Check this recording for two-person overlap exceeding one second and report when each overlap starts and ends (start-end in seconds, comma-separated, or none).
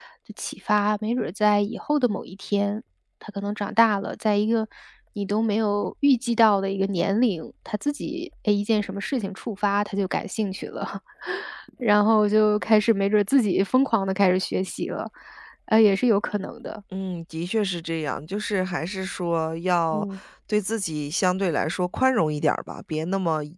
none